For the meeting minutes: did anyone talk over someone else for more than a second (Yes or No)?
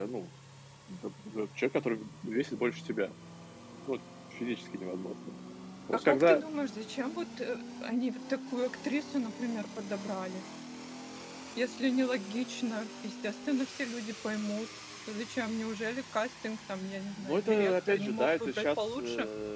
Yes